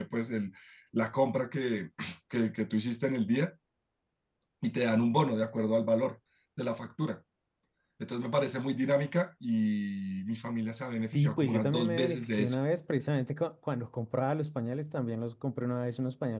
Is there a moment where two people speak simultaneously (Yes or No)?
Yes